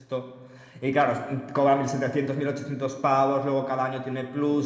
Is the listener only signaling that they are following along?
Yes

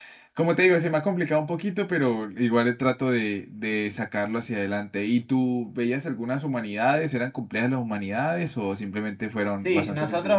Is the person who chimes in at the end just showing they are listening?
No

